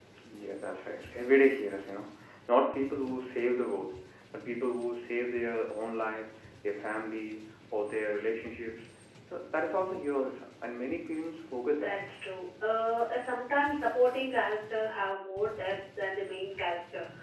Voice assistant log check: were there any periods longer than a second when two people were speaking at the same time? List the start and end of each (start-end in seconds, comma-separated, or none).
none